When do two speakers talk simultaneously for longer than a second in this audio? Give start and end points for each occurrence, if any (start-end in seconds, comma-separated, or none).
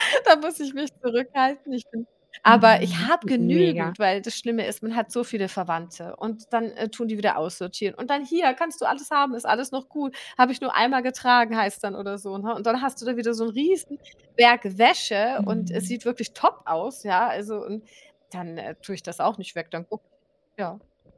2.5-3.9